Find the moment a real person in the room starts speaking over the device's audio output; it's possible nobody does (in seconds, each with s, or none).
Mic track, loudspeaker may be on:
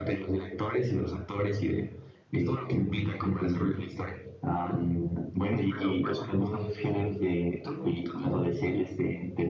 none